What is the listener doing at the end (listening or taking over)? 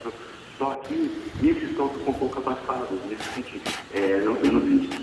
listening